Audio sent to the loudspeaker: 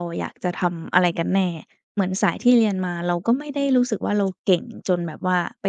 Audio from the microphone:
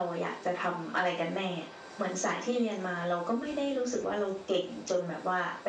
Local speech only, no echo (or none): none